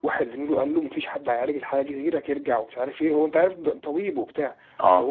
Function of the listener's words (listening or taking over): listening